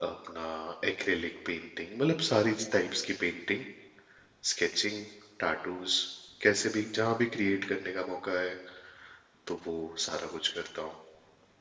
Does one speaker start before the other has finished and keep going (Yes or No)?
No